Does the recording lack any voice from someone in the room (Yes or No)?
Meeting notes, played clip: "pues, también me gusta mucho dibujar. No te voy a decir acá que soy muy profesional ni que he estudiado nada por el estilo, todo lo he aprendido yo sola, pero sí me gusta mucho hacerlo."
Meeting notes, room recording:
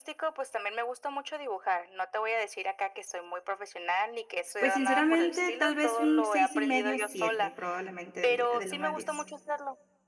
No